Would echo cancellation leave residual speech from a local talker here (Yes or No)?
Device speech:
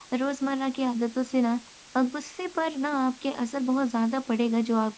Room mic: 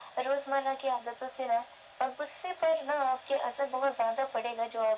No